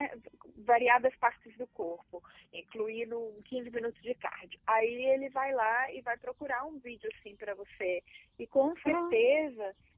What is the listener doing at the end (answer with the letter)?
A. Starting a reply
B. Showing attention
B